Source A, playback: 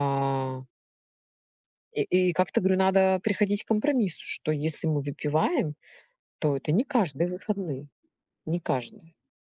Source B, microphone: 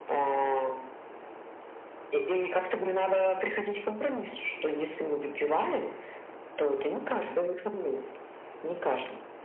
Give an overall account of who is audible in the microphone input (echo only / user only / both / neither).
echo only